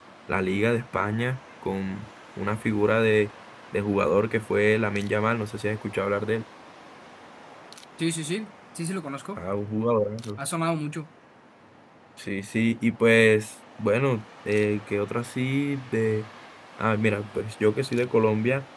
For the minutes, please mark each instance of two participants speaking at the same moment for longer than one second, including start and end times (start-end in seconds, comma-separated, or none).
none